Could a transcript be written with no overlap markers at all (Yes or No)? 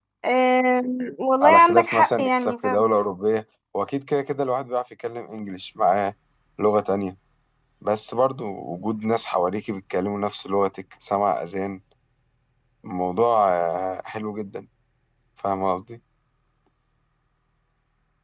No